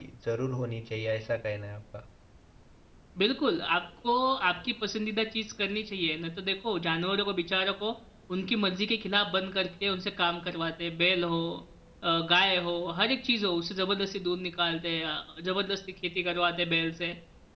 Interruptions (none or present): none